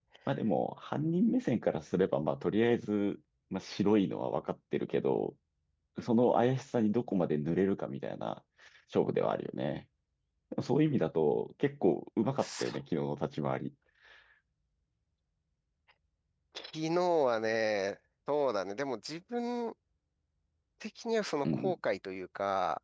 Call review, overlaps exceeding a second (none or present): none